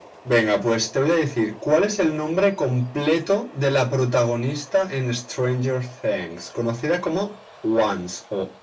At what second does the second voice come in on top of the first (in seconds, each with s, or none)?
none